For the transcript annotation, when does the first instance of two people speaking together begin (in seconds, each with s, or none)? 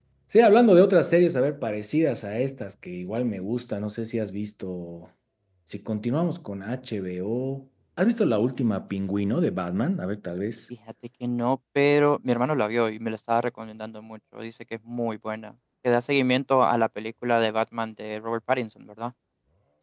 none